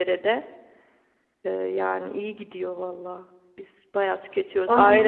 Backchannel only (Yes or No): Yes